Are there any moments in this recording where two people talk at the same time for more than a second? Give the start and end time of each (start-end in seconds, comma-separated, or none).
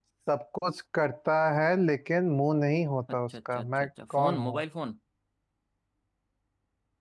3.3-4.6